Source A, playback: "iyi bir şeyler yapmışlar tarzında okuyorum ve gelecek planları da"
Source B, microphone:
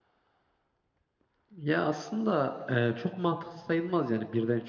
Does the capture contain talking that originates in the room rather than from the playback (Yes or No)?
Yes